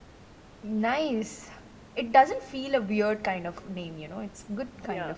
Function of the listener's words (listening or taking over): taking over